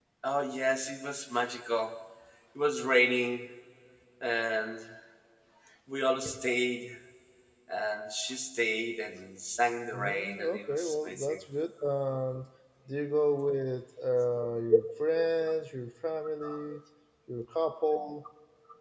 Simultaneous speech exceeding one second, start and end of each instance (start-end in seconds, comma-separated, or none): 9.9-11.4